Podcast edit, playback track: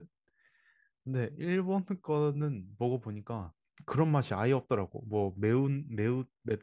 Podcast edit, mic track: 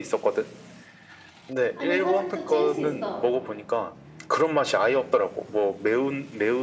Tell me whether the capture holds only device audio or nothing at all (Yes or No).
No